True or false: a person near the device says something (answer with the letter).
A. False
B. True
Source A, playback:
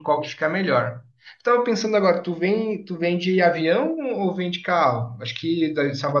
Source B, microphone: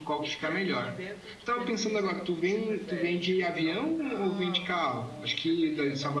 B